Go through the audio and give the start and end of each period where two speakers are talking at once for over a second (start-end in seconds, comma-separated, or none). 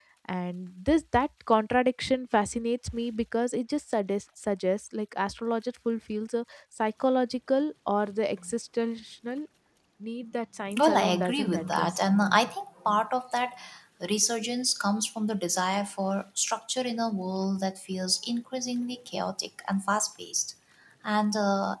10.8-12.0